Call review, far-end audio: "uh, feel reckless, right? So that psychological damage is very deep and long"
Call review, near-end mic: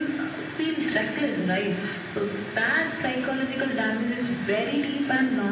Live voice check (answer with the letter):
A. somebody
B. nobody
B